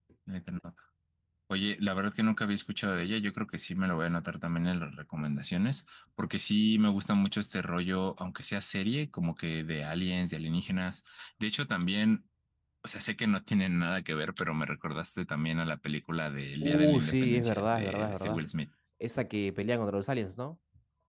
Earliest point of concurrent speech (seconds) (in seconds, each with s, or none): 16.6 s